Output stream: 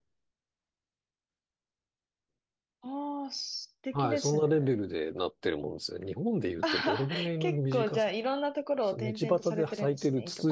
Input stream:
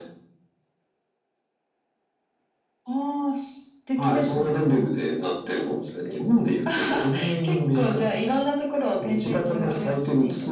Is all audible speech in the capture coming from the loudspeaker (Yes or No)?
Yes